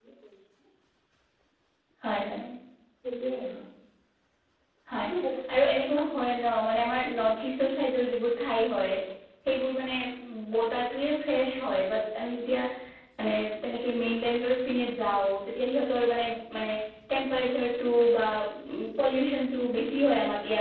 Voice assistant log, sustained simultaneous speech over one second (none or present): none